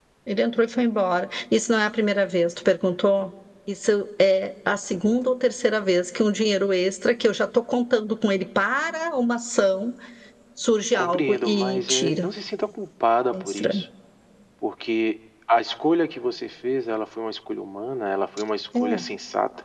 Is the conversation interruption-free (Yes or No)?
No